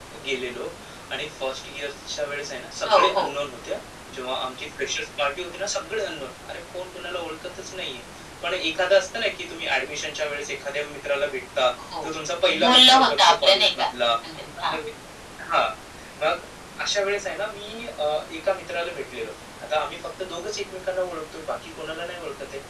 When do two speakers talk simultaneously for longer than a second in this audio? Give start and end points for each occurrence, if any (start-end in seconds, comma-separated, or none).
12.6-13.9